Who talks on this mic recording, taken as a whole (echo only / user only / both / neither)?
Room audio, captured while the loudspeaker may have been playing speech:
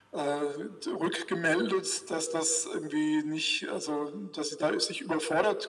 echo only